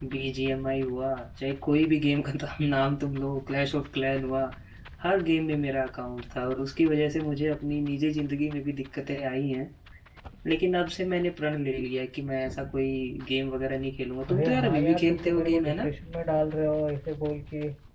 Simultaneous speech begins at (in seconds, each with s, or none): 14.3 s